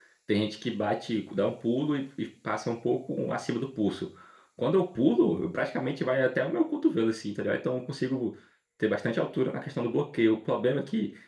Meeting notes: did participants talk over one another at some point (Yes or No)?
No